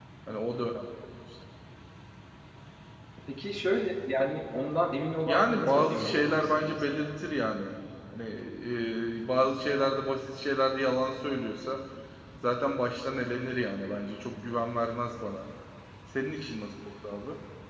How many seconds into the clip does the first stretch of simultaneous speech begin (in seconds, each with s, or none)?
5.3 s